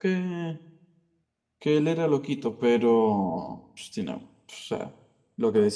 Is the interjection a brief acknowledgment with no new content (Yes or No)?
Yes